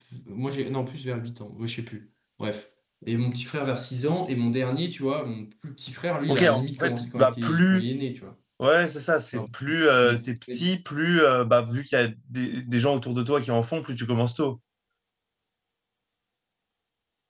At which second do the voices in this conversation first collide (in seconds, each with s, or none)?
6.3 s